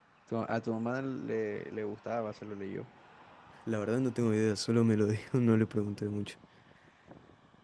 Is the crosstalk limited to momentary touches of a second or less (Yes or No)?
Yes